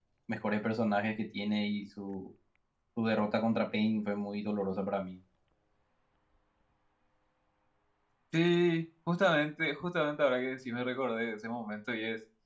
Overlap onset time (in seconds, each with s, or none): none